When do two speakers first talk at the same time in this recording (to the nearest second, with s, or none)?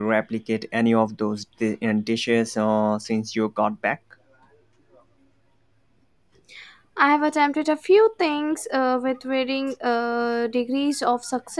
none